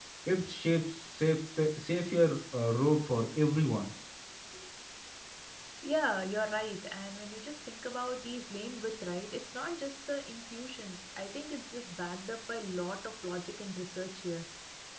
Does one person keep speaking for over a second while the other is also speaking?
No

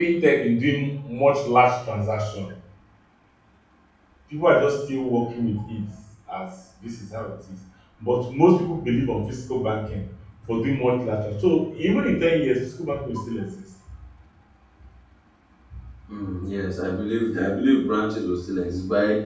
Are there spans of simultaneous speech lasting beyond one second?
No

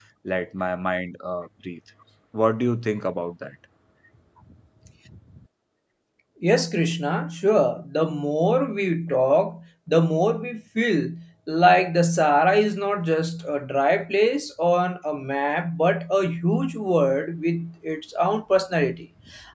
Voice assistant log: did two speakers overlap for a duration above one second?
No

